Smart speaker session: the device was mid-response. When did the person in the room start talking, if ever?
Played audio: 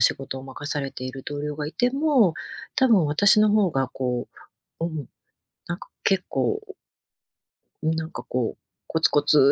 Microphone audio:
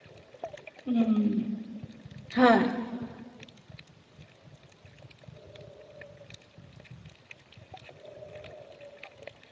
0.8 s

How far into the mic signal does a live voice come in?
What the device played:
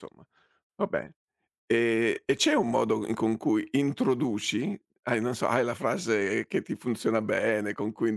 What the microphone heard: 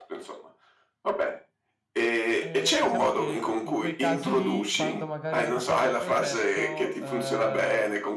2.4 s

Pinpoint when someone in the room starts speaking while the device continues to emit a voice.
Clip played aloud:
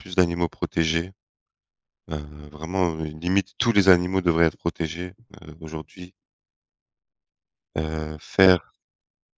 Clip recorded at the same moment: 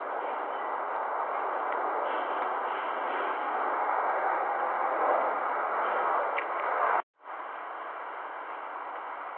none

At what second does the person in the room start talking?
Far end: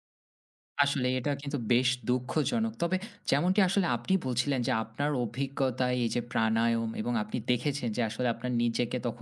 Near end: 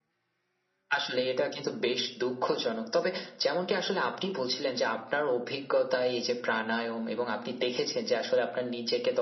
none

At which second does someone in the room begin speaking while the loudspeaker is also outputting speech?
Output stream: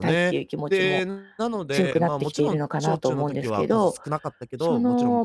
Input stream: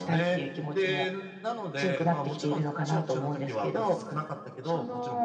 none

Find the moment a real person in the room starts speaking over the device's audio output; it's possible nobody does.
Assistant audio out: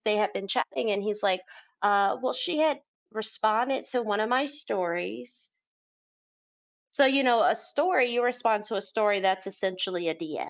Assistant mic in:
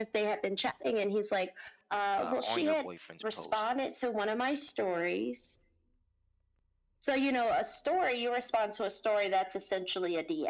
2.2 s

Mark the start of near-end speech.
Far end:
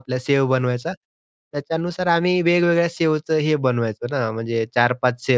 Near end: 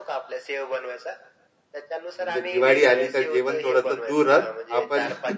2.1 s

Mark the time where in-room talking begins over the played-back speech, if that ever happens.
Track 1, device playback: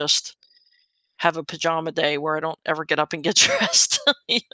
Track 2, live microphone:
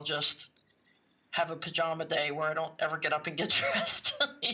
none

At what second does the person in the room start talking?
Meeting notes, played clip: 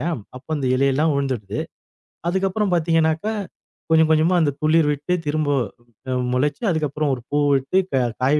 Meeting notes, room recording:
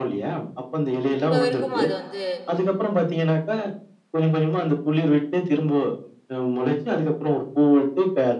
1.2 s

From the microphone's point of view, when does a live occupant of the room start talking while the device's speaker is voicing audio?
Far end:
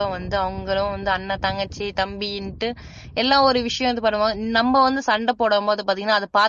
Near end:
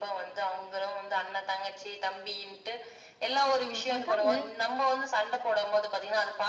3.6 s

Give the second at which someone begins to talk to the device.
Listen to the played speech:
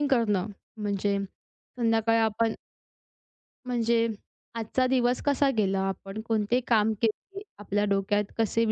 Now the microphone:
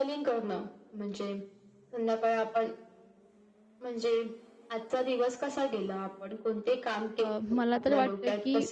7.2 s

